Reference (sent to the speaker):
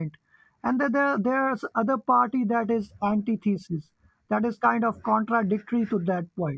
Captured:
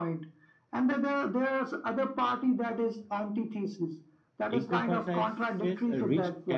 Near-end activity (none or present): present